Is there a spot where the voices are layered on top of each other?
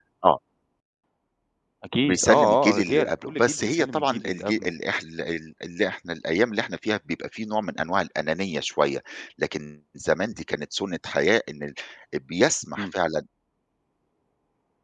Yes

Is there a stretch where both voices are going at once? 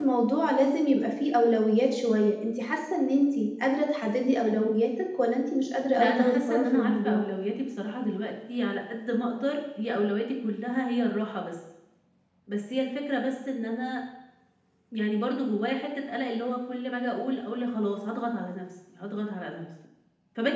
Yes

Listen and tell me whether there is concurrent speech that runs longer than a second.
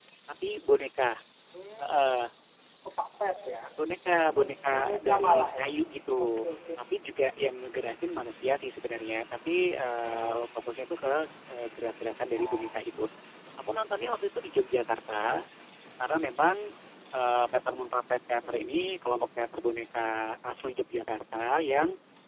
Yes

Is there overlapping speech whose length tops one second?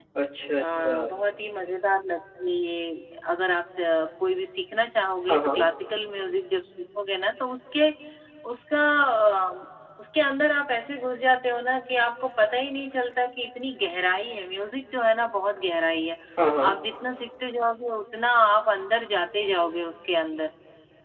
No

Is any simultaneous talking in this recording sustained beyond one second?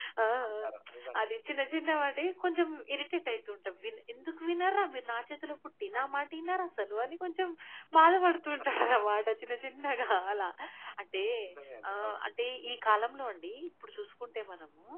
No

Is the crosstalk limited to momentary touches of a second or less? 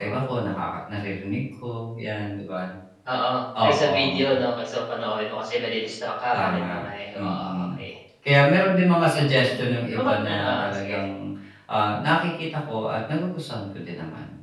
No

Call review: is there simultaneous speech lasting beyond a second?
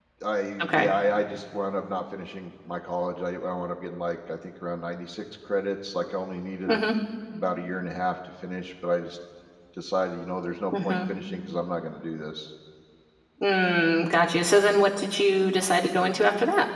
No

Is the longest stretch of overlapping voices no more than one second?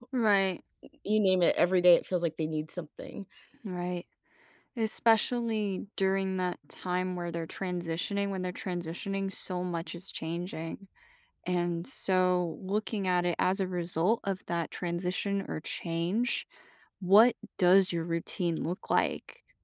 Yes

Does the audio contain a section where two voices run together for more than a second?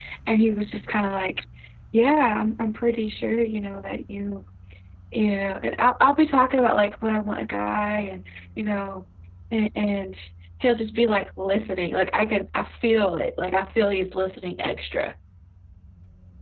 No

